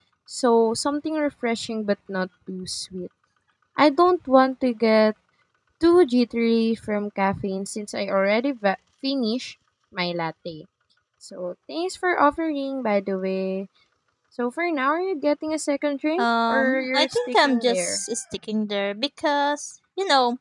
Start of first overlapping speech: 16.2 s

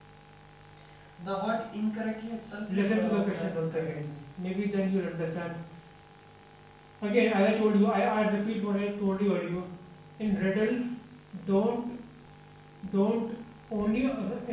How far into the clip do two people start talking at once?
2.7 s

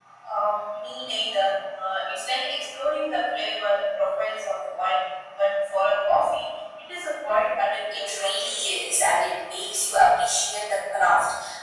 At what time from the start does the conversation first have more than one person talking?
7.9 s

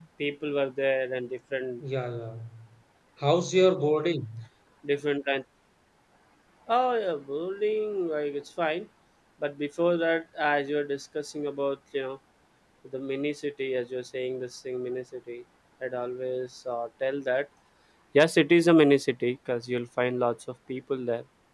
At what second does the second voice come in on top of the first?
none

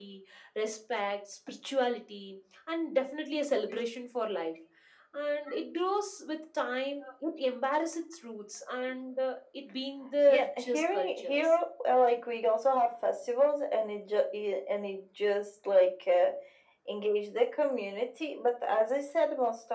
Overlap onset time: 10.2 s

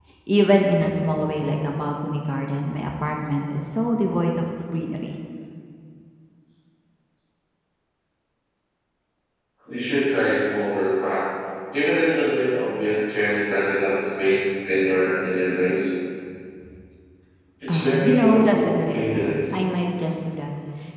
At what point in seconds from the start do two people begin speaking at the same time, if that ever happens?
17.7 s

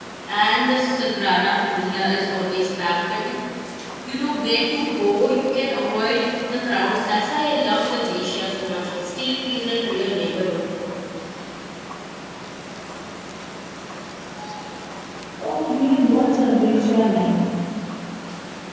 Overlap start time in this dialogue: none

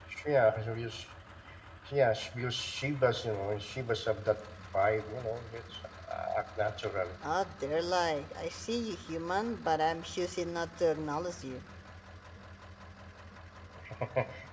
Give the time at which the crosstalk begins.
none

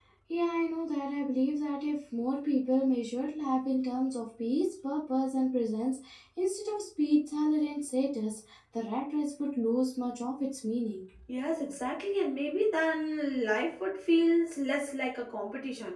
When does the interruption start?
none

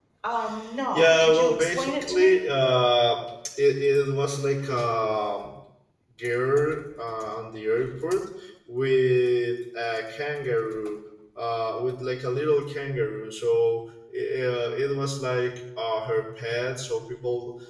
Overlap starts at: 0.9 s

